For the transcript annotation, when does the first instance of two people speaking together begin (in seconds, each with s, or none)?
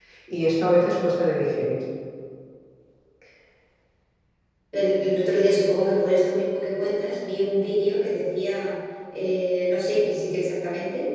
none